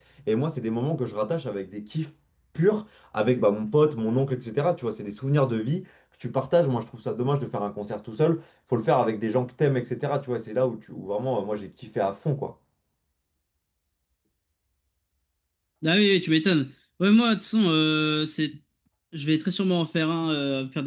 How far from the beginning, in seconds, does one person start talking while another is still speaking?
none

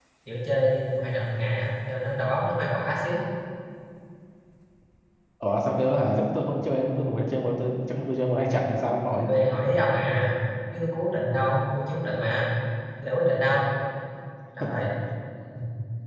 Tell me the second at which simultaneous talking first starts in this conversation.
none

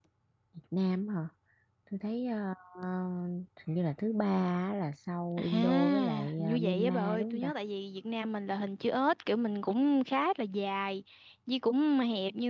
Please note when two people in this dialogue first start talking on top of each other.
5.4 s

